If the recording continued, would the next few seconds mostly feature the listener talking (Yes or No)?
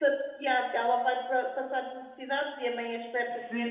Yes